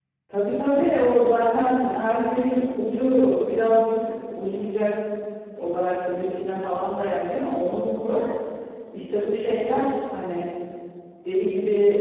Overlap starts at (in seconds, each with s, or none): none